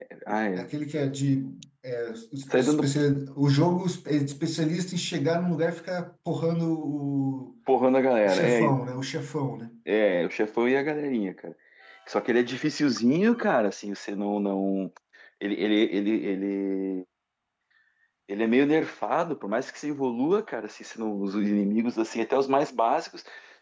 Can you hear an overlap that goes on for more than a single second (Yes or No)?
No